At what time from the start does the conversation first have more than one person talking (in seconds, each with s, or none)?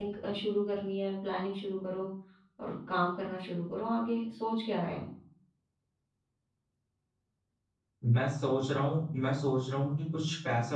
none